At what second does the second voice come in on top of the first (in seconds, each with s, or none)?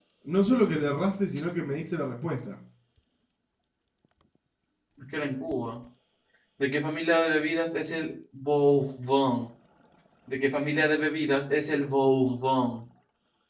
none